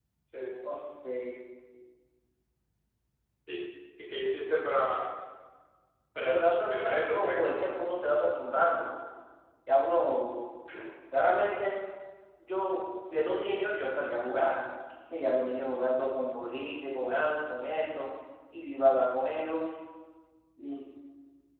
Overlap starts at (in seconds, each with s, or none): 6.2 s